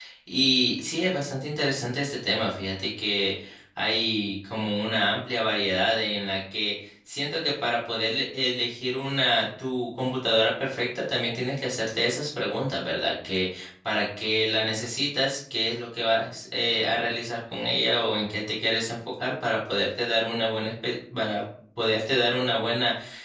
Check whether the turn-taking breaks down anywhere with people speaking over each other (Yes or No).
No